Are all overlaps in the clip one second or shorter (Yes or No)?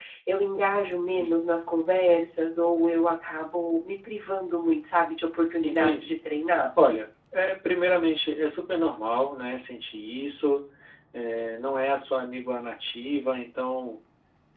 Yes